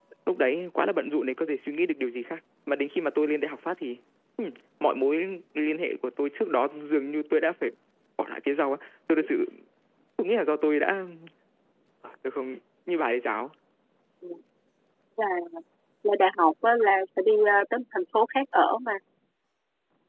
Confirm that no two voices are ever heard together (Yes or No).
Yes